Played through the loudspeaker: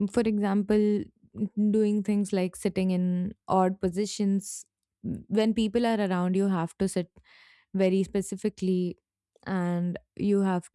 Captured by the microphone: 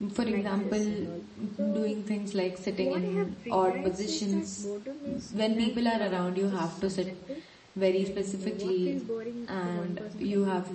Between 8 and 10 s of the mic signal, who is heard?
both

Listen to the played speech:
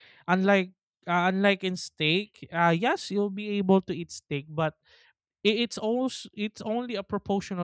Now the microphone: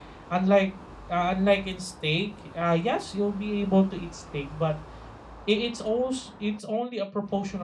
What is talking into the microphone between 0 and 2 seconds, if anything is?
echo only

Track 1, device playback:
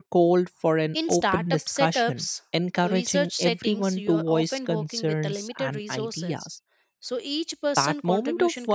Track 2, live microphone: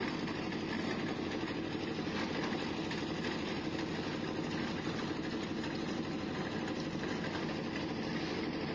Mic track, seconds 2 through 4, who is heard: neither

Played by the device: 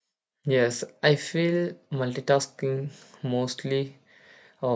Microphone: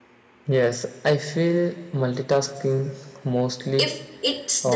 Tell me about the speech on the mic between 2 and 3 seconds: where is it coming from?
echo only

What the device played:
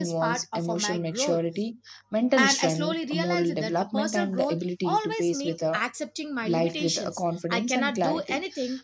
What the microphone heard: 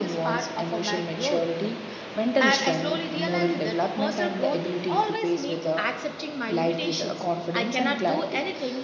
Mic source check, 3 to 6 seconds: echo only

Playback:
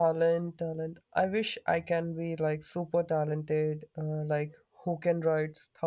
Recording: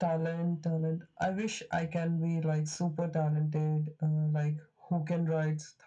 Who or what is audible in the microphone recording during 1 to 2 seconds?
echo only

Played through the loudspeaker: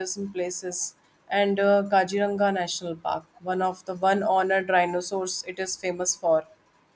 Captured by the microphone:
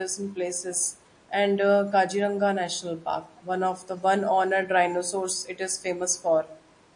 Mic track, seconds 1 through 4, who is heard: echo only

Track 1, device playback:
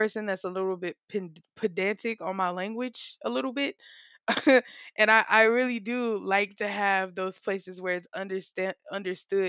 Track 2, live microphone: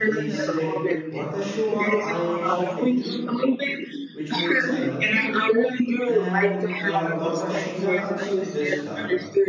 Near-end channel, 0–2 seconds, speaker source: both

